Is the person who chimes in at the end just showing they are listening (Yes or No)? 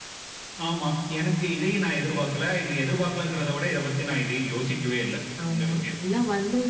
No